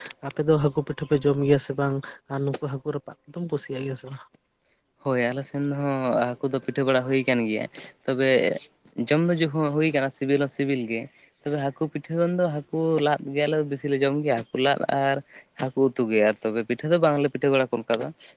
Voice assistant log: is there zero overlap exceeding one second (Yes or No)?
Yes